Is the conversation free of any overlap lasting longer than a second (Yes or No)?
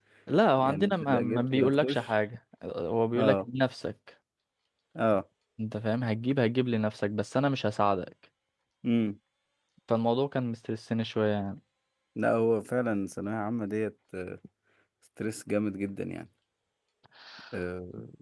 No